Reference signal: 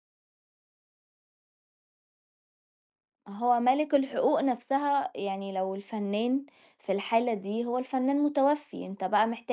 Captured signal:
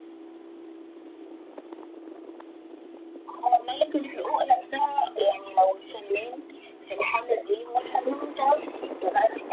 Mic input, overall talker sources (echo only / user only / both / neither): echo only